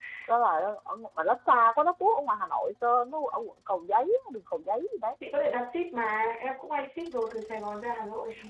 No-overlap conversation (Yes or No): Yes